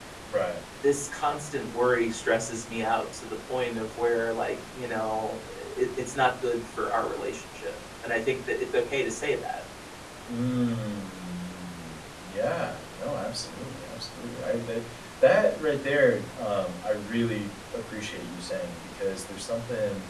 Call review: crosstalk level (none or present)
none